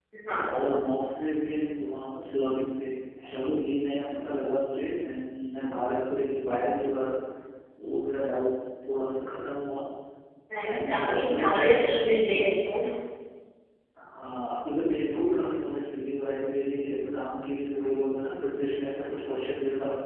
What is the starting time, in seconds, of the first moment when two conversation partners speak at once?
10.6 s

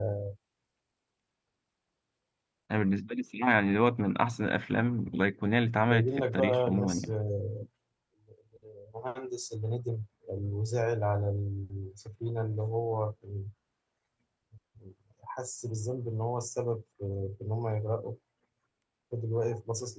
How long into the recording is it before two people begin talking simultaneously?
5.9 s

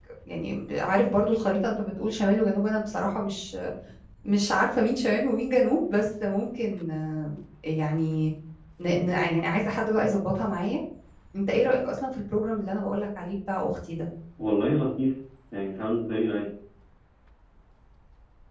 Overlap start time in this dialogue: none

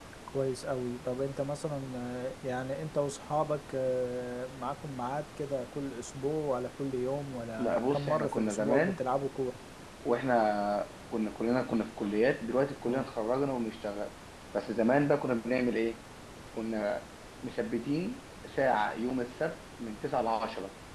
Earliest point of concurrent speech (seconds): 7.6 s

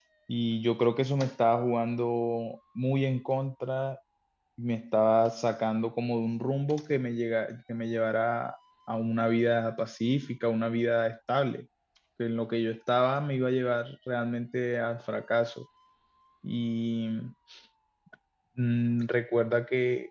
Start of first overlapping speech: none

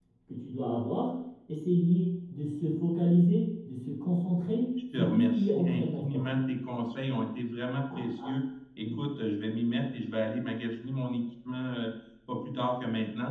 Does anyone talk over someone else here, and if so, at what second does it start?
4.9 s

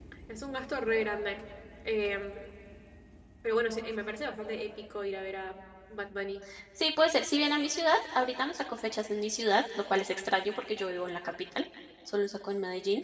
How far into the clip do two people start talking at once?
none

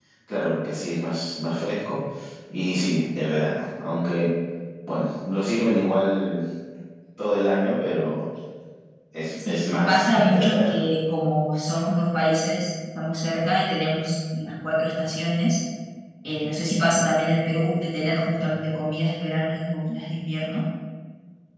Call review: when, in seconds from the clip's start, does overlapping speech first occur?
9.4 s

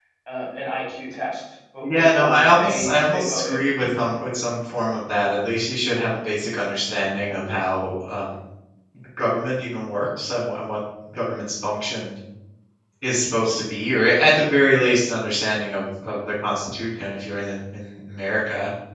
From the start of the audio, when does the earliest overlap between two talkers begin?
1.8 s

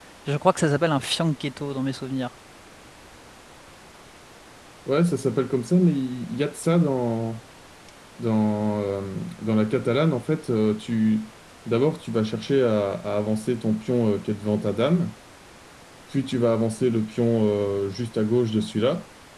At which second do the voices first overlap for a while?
none

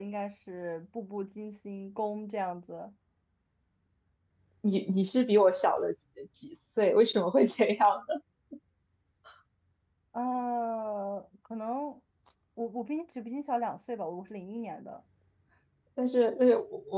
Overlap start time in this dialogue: none

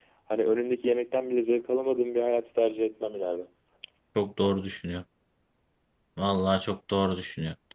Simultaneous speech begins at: none

